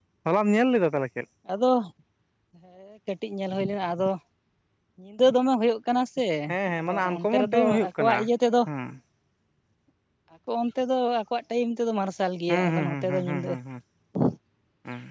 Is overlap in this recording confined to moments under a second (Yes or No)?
No